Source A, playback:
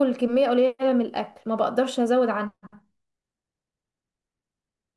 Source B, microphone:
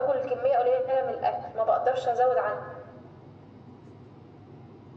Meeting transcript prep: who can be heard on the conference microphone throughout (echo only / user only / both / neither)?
echo only